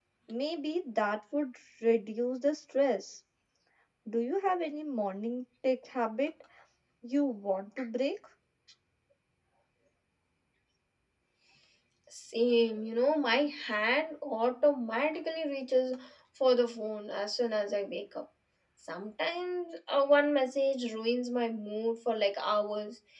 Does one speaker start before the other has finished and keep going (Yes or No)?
No